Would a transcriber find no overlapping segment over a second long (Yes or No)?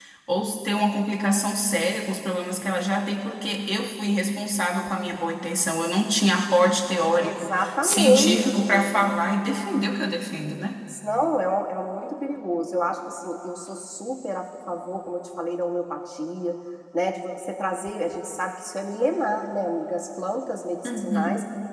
No